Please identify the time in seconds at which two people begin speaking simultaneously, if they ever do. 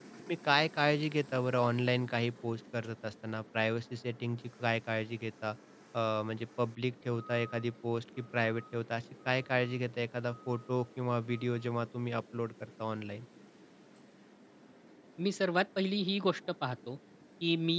none

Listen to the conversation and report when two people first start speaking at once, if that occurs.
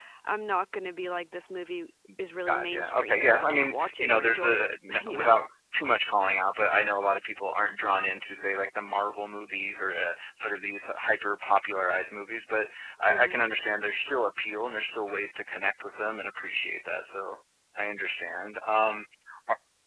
2.5 s

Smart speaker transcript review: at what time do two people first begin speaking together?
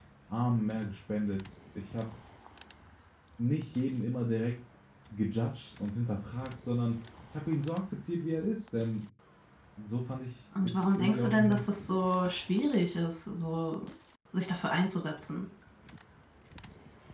10.6 s

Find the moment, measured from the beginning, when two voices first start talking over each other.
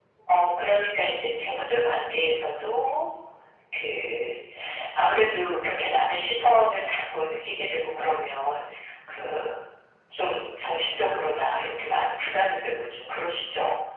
none

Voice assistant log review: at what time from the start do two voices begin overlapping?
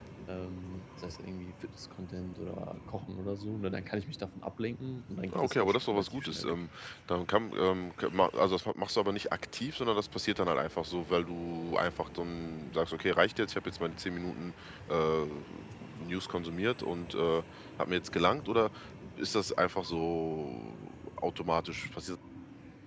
5.3 s

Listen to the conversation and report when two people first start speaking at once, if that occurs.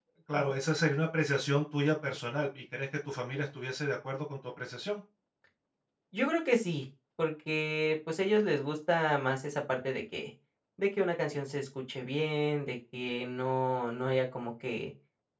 none

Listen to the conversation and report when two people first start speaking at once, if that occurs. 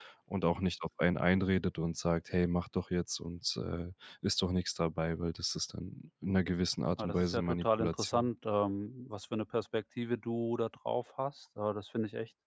7.0 s

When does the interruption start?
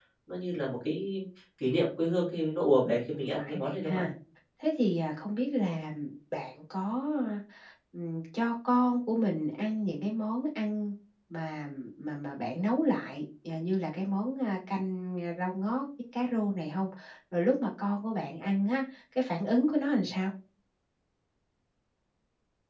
2.9 s

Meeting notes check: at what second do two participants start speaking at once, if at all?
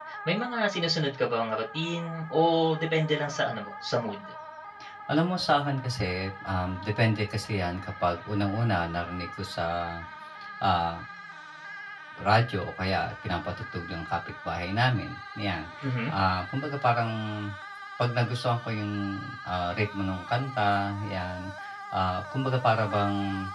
none

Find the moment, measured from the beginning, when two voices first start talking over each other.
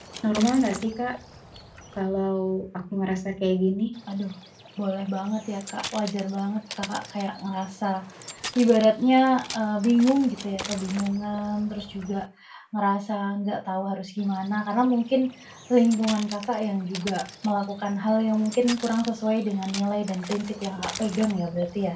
none

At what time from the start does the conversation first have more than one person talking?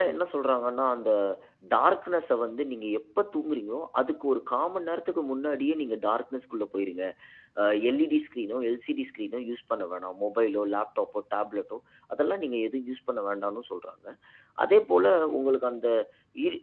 none

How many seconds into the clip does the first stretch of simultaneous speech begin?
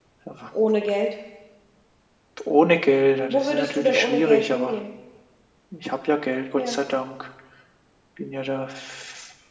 3.3 s

